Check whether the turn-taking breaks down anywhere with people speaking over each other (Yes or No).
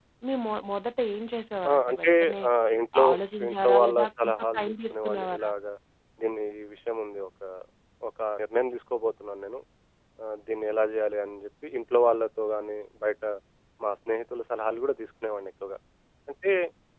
Yes